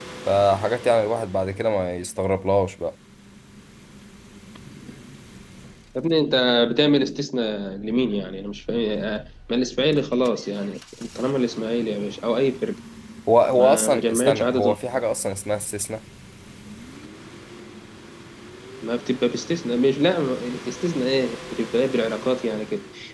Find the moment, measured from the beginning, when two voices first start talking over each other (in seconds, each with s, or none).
13.5 s